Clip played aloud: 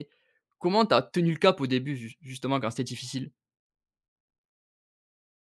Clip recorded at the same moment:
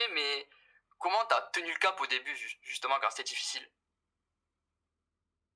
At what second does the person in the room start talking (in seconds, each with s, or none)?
none